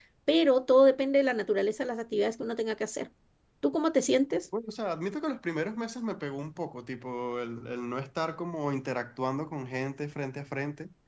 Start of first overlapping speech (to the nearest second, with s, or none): none